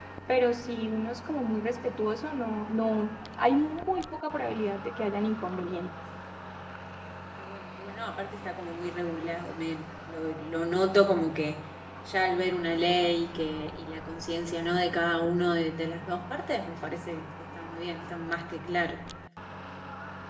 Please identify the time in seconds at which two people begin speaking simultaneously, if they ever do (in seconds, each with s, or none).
none